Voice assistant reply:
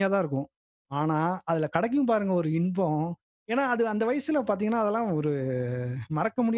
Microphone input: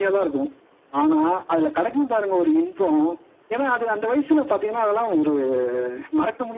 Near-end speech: none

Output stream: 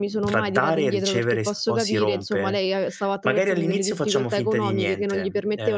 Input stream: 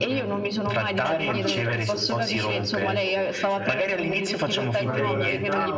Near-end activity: present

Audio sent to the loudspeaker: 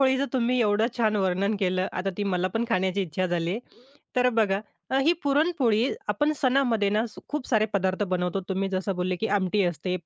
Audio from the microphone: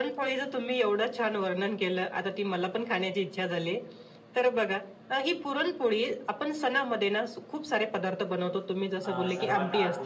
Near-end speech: present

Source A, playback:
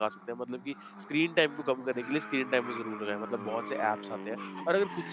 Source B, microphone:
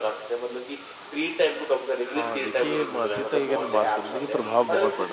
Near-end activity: present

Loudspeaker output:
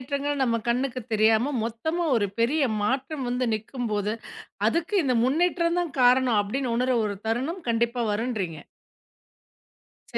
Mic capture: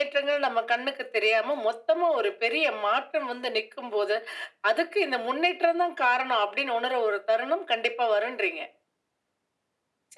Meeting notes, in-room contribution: none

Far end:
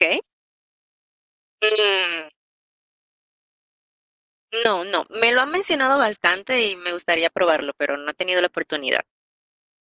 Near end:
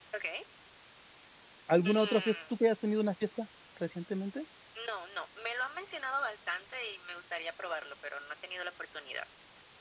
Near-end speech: present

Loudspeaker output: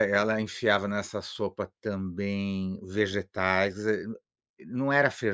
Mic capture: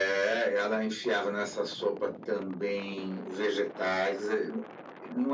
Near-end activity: none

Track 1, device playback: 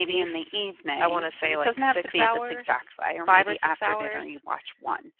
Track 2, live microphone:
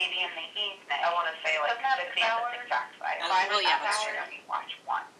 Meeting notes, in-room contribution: present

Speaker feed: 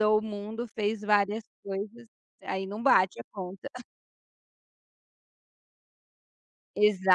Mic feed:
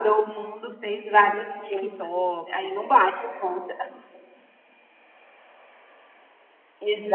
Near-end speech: present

